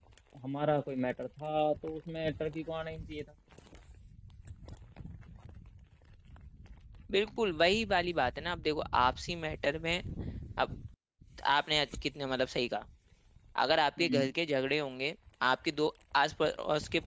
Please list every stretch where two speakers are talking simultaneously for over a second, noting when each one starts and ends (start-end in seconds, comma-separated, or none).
none